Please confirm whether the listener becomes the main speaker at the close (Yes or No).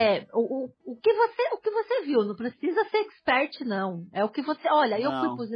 No